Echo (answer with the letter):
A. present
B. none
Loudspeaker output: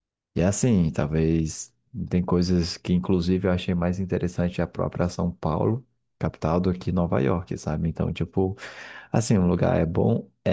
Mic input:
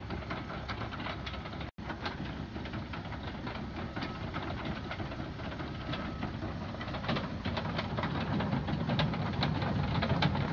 B